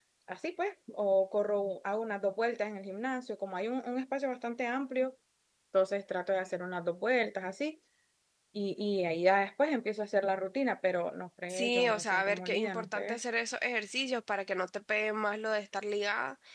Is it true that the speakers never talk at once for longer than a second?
No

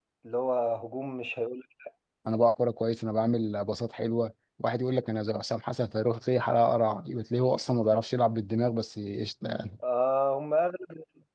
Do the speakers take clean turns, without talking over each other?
Yes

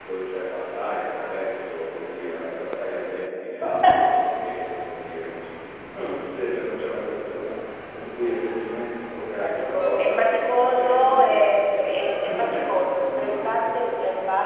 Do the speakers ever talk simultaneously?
Yes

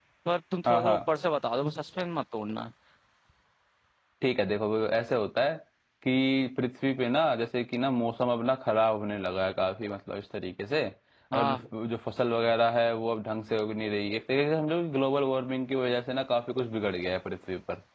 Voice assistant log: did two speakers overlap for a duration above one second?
No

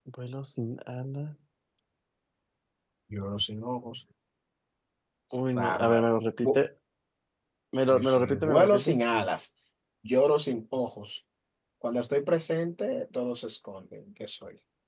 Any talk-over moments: Yes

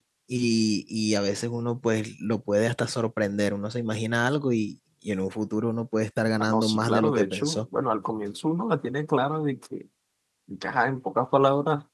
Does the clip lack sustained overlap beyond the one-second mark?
No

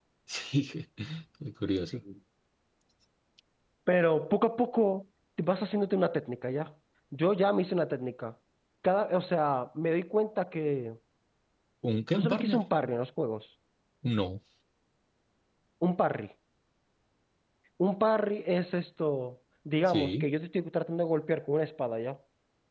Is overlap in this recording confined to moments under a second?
Yes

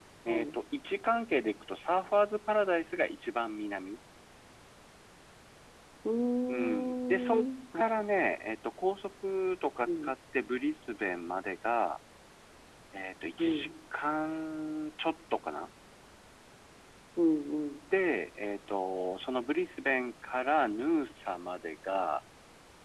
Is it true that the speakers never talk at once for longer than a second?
No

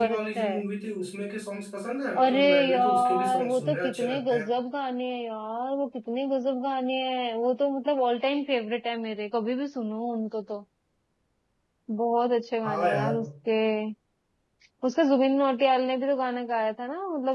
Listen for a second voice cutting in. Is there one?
Yes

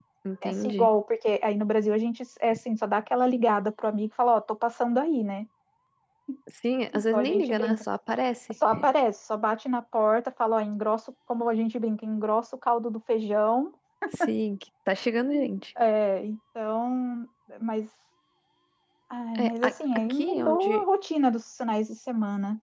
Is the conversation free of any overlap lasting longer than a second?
No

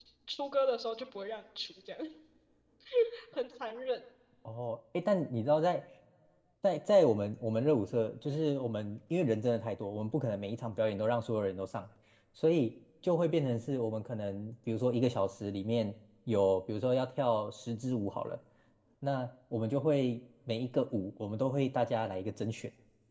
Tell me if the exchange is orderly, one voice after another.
Yes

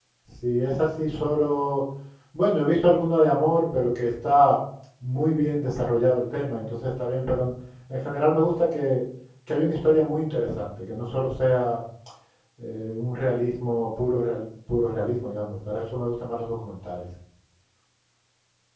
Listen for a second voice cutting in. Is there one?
No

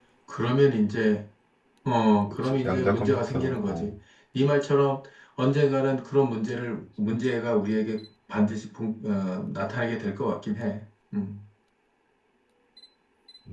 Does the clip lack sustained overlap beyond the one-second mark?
No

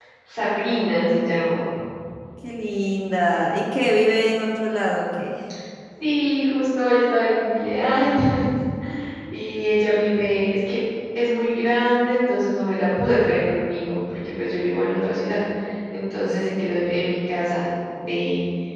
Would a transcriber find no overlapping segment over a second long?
Yes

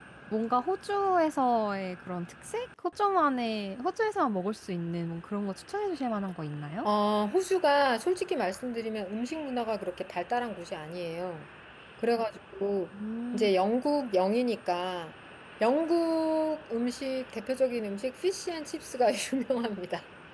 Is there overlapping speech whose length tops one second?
No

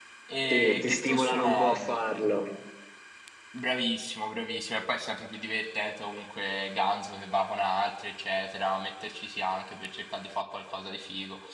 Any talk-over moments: Yes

